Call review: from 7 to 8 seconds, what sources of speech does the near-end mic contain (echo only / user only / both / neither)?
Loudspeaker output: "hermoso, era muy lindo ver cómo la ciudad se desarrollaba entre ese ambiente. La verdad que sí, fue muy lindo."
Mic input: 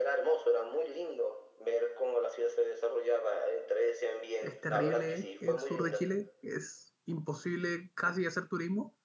user only